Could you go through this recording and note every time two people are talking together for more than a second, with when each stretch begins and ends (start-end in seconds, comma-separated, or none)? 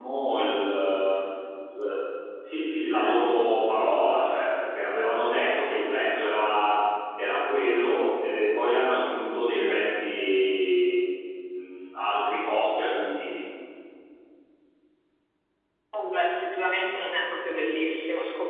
none